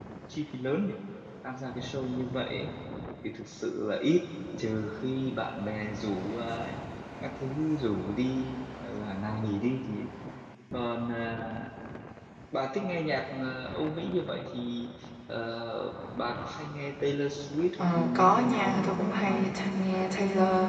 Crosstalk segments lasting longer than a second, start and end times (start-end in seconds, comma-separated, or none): 17.8-19.6